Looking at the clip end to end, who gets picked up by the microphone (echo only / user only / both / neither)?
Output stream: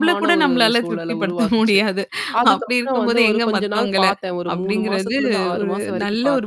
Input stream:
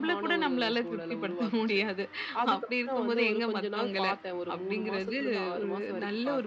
echo only